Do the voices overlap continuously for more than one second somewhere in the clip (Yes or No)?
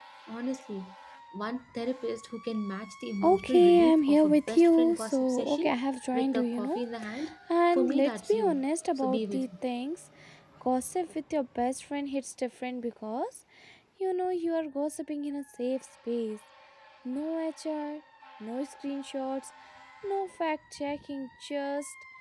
Yes